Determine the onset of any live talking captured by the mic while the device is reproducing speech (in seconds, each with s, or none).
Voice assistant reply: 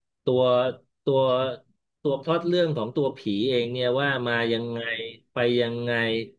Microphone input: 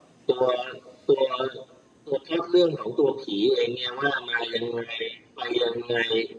none